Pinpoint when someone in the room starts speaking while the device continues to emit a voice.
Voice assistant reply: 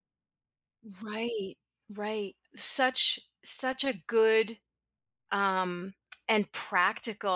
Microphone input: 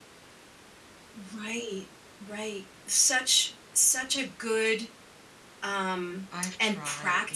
6.3 s

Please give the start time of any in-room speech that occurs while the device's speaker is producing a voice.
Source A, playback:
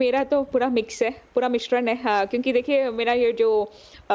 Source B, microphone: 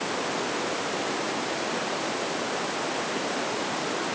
none

